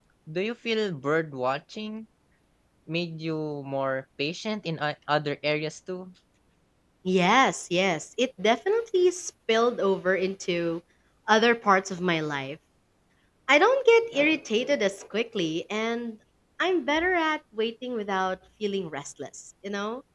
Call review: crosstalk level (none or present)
none